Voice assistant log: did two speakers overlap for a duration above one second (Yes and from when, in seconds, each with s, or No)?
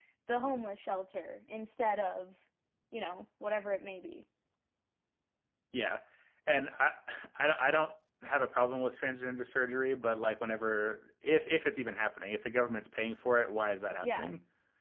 No